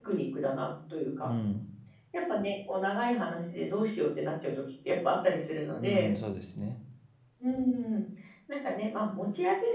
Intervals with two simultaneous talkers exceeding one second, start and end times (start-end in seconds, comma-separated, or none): none